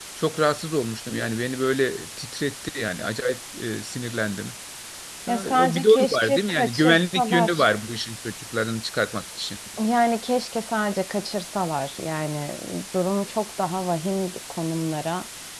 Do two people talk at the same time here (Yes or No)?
Yes